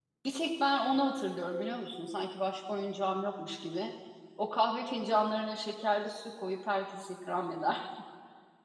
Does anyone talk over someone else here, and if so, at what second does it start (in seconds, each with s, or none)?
none